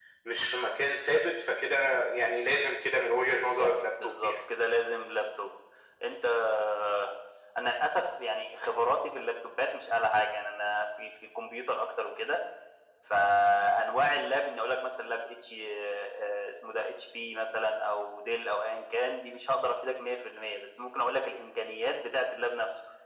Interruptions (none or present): present